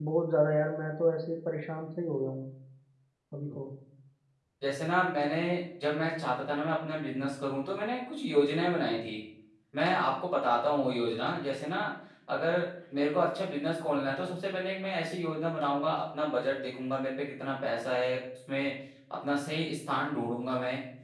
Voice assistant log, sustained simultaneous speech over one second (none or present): none